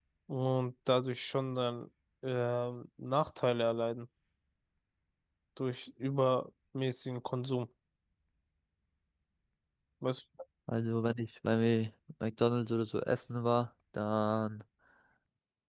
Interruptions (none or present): none